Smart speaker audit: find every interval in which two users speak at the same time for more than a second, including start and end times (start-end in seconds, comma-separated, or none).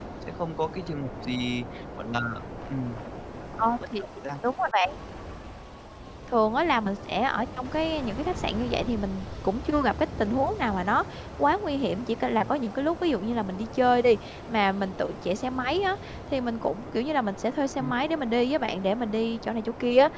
none